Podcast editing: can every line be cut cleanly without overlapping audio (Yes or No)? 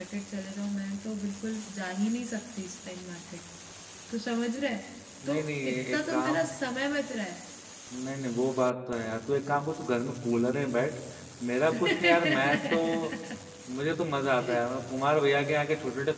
No